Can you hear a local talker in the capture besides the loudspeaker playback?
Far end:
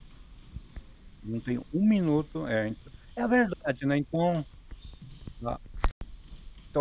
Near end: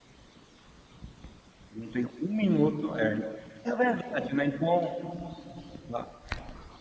No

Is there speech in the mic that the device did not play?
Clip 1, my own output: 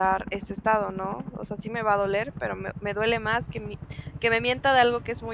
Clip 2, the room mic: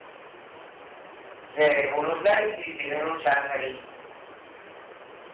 Yes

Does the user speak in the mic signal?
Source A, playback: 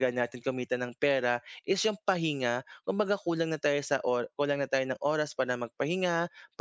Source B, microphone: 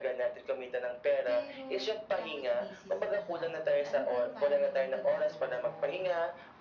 Yes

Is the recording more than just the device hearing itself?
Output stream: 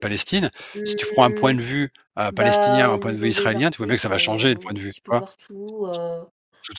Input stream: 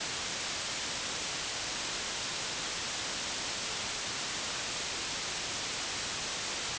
No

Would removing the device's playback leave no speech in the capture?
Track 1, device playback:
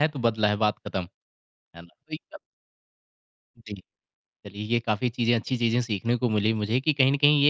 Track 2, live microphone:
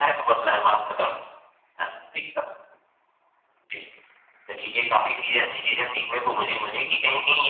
Yes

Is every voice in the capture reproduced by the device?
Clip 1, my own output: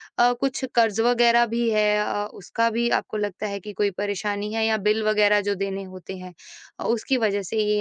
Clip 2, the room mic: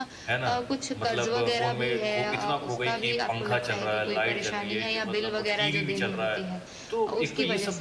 No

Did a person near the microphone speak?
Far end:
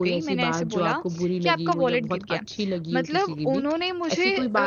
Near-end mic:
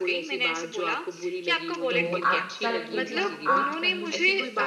Yes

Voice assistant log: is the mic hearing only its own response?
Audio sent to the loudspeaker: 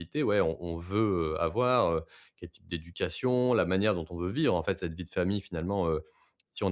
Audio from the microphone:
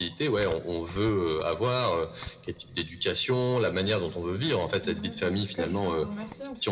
No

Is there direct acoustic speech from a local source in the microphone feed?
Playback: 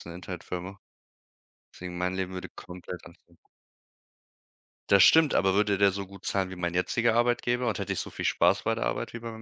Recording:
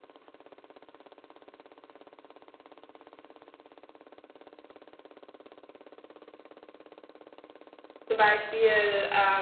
Yes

